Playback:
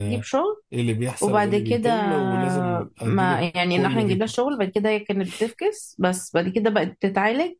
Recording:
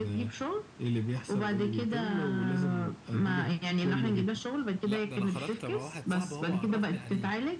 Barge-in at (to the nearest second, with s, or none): 5 s